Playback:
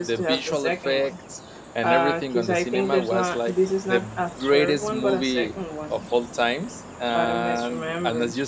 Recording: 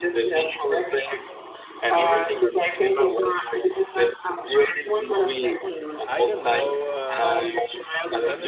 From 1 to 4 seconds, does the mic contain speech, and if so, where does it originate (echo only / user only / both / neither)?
echo only